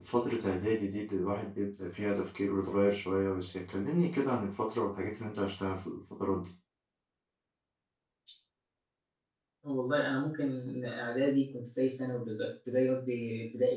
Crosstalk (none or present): none